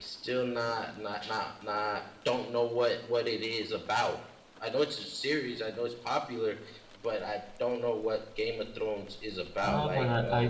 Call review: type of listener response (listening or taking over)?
taking over